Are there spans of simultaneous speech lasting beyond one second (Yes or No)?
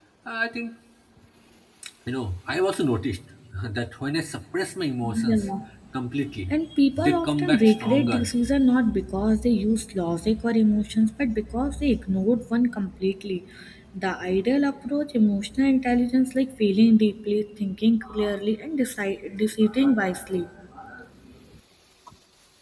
Yes